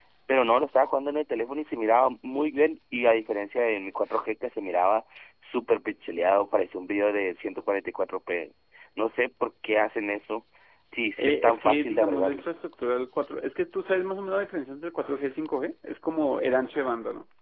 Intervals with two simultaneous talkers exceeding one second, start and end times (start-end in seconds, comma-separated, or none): 11.2-12.4